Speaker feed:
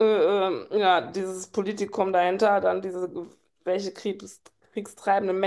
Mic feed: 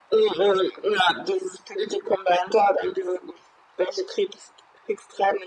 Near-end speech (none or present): none